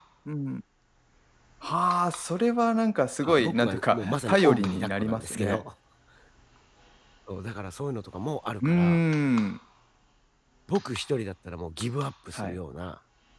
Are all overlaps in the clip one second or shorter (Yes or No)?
No